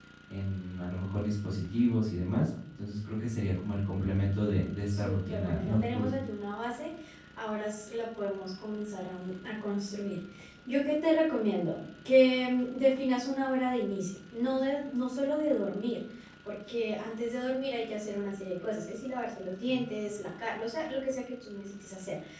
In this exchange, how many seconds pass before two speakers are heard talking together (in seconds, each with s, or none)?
4.9 s